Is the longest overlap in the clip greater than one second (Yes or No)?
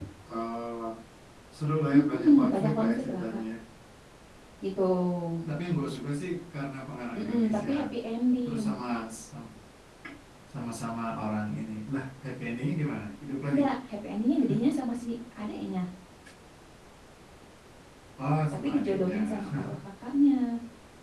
Yes